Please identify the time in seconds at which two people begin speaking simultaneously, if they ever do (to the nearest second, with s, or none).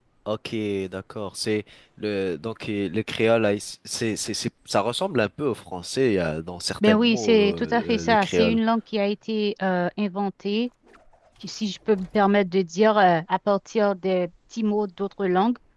7 s